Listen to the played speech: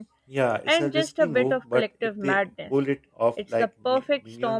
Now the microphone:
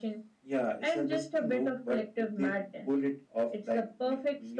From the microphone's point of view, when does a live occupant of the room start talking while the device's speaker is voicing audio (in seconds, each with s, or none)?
none